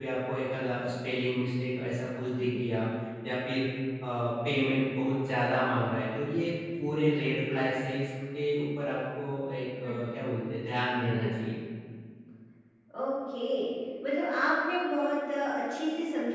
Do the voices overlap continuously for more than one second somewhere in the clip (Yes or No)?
No